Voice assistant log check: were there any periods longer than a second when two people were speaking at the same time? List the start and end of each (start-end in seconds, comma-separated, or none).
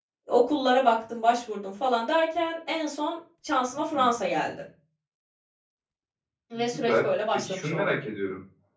6.7-8.0